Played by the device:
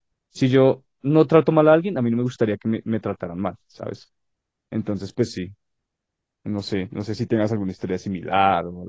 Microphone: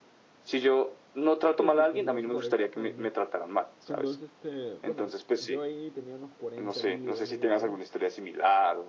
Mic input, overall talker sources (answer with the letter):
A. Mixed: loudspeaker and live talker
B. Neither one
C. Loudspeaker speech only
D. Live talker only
A